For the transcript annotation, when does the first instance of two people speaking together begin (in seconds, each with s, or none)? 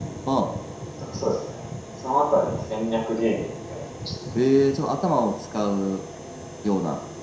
none